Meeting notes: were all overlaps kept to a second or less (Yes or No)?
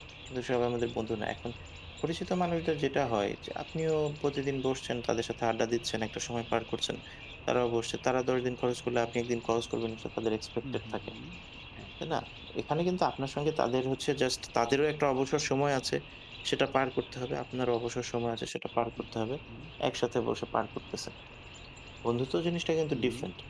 Yes